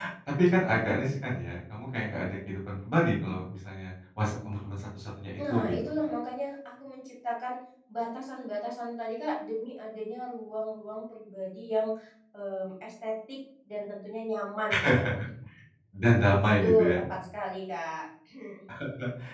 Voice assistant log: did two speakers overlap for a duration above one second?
No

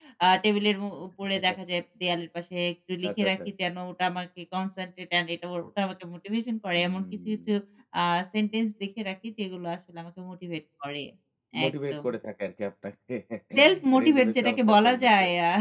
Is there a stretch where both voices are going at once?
Yes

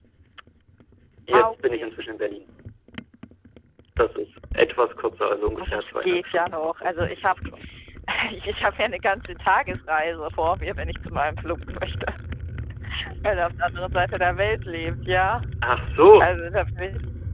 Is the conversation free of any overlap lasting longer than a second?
No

